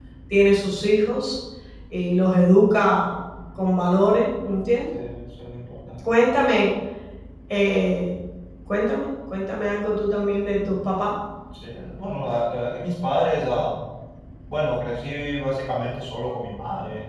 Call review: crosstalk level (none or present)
none